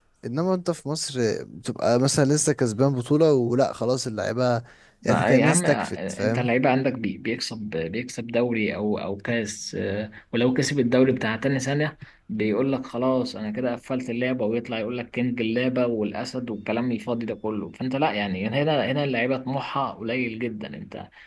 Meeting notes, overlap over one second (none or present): present